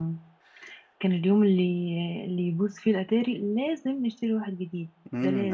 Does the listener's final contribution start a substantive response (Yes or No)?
Yes